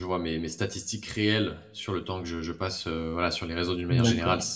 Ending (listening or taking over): taking over